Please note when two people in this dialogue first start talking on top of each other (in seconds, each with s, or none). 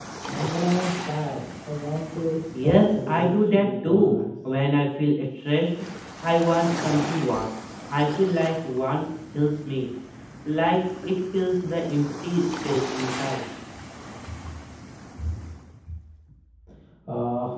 2.5 s